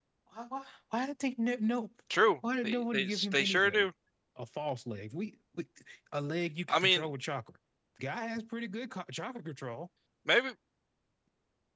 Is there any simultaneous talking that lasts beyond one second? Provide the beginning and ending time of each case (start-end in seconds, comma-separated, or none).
2.6-3.9